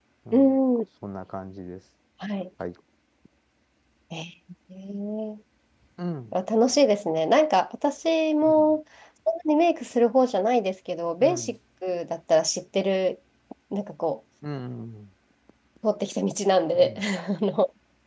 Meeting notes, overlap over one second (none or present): none